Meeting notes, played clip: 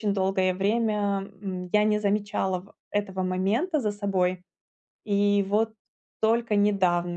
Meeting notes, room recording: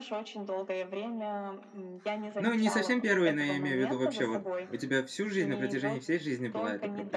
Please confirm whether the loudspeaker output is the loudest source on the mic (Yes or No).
No